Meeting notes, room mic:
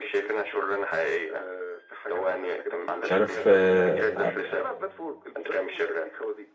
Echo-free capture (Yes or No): No